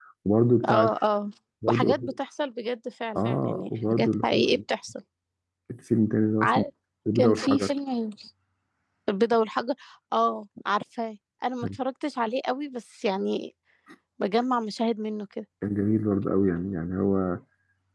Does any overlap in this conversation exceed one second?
Yes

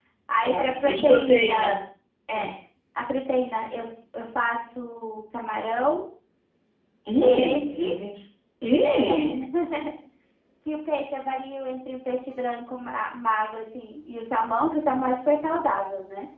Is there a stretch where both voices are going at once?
Yes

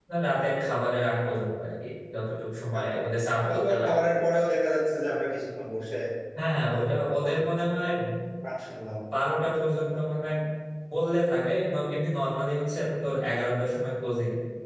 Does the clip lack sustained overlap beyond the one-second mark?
No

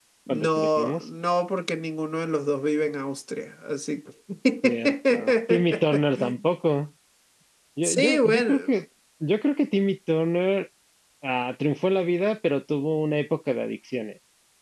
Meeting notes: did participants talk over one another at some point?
Yes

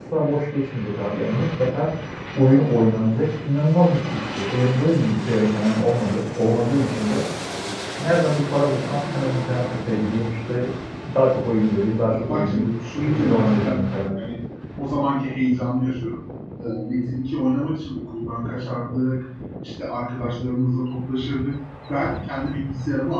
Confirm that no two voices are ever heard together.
No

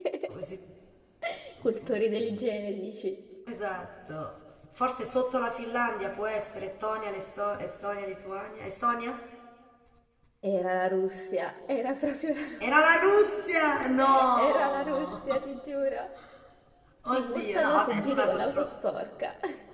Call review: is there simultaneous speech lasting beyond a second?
Yes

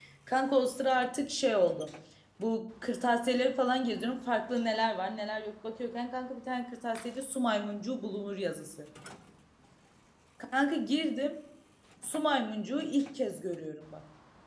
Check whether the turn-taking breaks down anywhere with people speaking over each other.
No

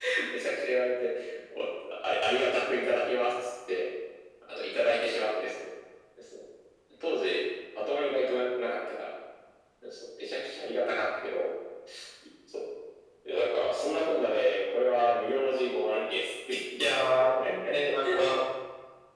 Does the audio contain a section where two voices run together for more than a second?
No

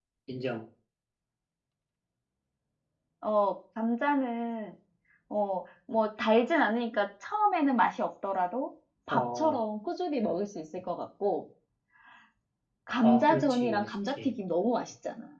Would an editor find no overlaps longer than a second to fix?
No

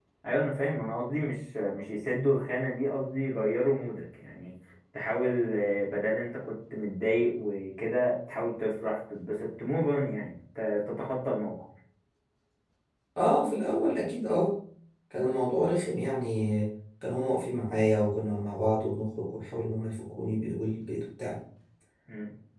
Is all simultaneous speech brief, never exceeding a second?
Yes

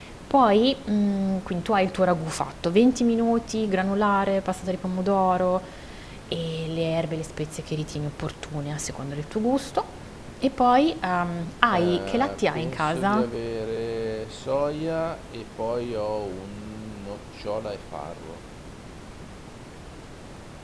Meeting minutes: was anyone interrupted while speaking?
Yes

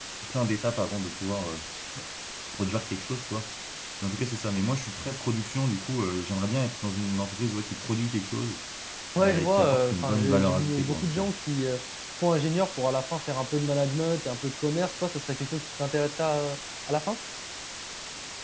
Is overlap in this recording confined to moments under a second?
No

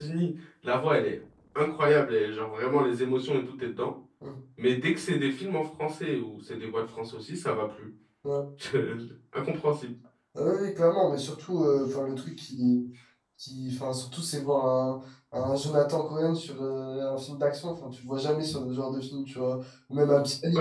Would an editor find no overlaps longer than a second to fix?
Yes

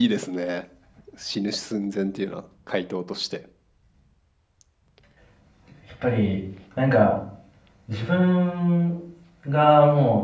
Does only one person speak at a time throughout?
Yes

